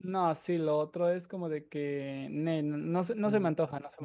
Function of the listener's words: taking over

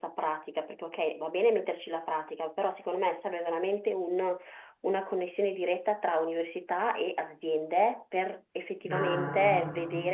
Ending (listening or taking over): listening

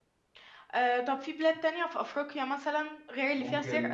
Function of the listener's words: taking over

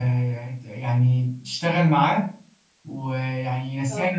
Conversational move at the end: listening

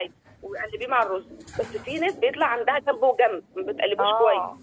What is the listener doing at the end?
taking over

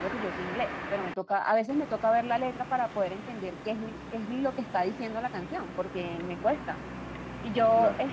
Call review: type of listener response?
listening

